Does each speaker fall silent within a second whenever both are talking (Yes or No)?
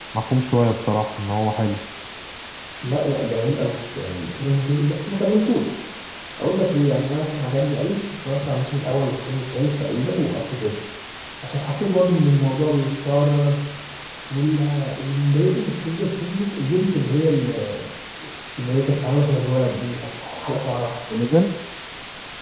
Yes